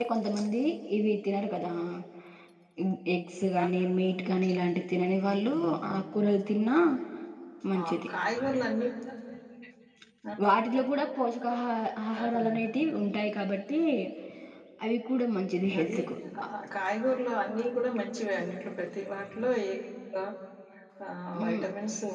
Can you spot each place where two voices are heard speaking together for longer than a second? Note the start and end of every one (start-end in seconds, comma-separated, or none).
none